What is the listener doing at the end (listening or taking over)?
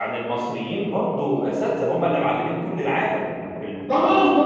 taking over